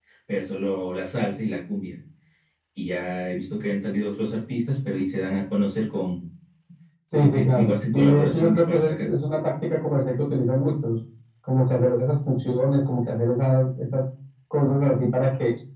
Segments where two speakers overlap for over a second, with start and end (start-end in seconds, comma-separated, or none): 7.1-9.1